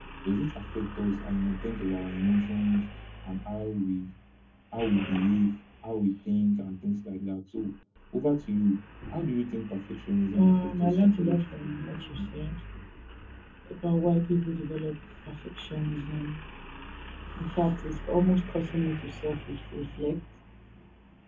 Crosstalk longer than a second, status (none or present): present